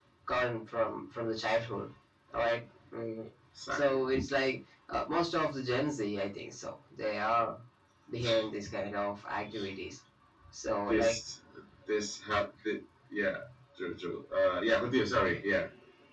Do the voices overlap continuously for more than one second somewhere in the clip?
No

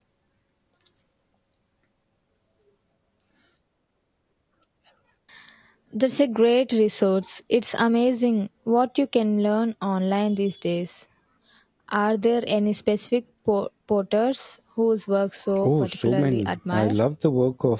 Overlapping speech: Yes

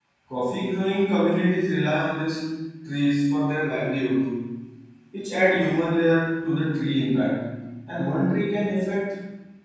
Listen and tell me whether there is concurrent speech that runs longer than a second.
No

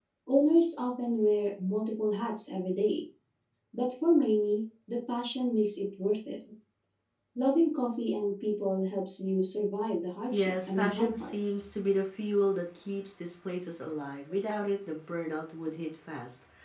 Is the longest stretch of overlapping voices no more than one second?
No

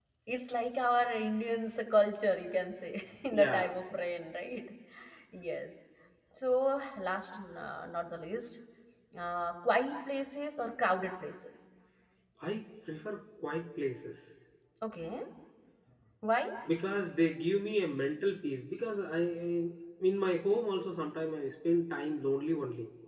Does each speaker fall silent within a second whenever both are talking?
Yes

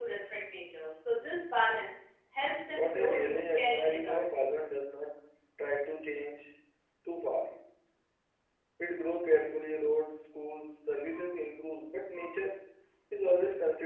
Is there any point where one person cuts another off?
Yes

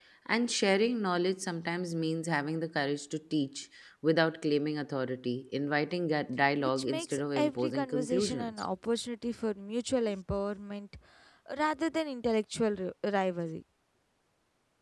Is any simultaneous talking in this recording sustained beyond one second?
Yes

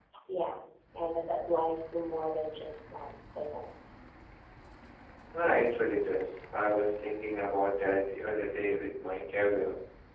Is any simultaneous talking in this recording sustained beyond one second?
No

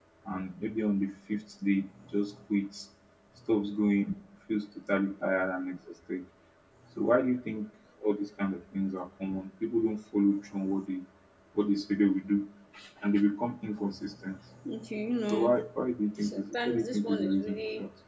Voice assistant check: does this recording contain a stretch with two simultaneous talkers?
Yes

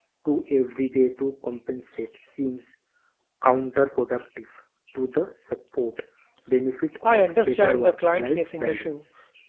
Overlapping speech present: Yes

